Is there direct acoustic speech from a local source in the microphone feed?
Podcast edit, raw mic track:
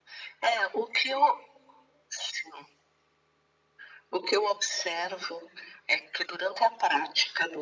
No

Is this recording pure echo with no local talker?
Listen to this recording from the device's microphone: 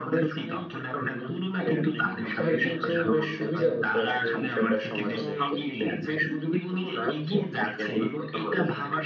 No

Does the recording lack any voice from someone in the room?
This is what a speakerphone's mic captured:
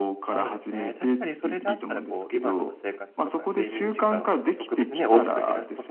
No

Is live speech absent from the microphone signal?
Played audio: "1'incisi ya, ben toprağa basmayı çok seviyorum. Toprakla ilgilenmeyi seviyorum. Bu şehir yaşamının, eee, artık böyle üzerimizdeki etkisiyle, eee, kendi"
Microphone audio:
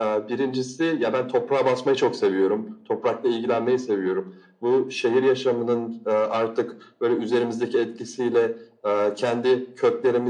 Yes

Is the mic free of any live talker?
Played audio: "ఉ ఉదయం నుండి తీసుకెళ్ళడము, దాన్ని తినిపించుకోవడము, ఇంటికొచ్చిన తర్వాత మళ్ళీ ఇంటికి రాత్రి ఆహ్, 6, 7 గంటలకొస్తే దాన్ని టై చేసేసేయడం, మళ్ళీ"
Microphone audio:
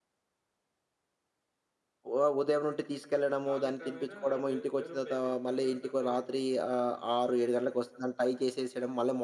No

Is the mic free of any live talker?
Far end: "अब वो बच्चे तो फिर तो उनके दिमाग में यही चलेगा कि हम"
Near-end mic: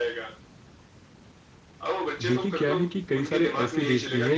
No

